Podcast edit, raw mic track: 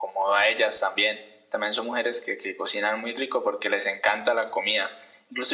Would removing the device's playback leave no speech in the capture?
Yes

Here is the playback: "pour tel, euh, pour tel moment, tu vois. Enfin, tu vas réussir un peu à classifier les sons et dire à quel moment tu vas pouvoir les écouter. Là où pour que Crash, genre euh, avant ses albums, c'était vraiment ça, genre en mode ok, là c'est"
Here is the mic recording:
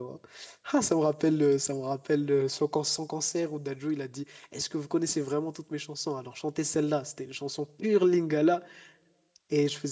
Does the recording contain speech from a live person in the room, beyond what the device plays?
Yes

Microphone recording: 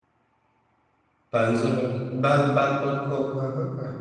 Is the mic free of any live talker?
No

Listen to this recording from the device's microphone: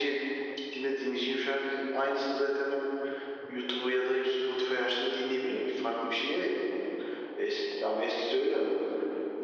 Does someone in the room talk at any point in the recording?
No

